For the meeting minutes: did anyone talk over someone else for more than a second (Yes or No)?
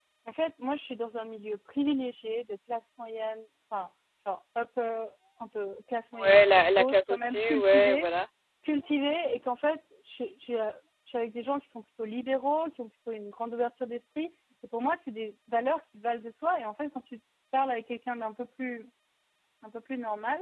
Yes